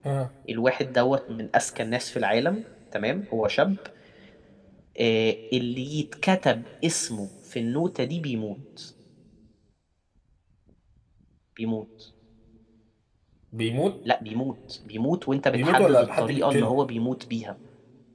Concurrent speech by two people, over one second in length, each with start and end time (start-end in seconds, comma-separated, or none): 15.5-16.7